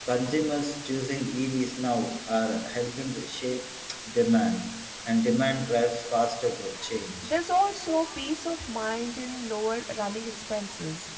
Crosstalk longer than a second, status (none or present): none